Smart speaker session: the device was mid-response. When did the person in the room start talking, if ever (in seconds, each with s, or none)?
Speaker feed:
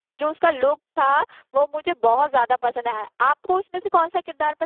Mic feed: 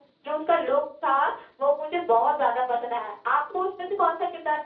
none